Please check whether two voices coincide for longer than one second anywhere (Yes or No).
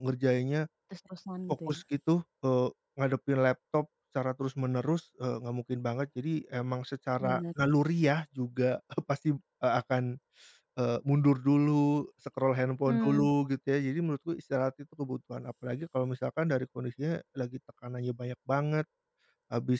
No